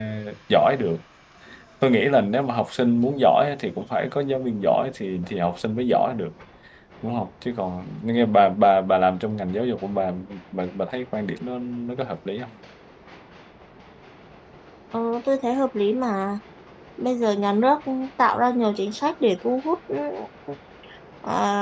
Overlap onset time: none

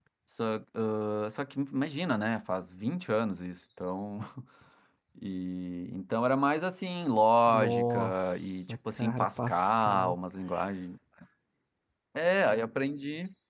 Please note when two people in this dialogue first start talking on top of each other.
7.5 s

